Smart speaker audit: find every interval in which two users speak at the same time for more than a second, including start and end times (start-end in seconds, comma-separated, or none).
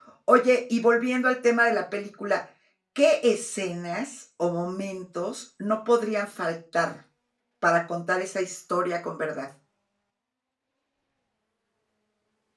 none